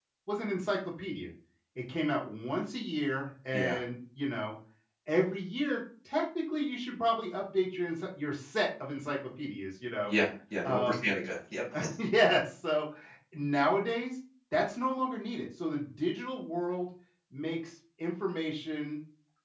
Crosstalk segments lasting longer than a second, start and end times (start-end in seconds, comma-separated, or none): none